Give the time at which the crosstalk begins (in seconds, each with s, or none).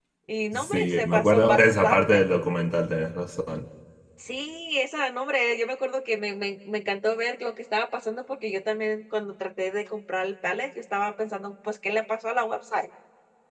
0.5 s